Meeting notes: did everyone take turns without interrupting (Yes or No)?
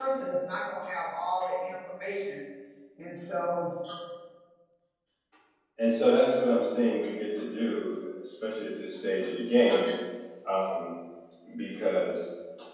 Yes